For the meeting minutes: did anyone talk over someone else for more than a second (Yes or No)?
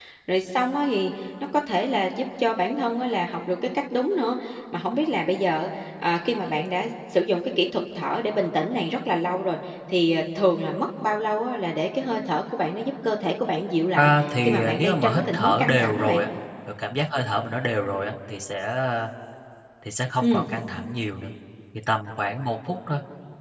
Yes